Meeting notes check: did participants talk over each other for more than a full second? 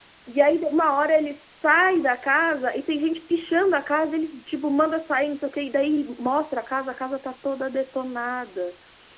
No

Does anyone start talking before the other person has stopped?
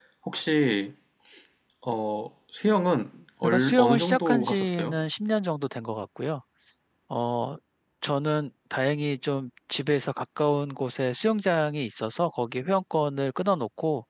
Yes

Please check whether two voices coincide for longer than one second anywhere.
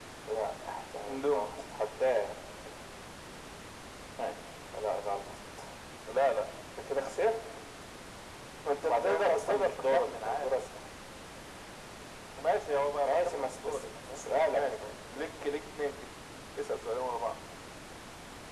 Yes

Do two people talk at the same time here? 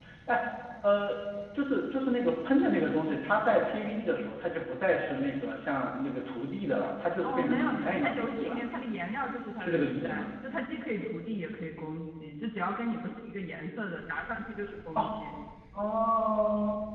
Yes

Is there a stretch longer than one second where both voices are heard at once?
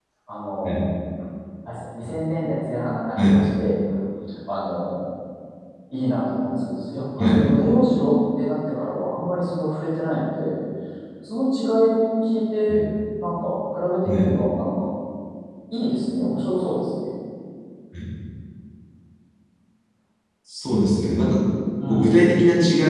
No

